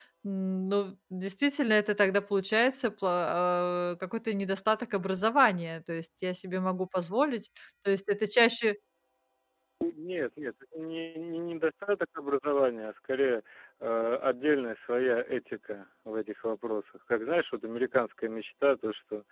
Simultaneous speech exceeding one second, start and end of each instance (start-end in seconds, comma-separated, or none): none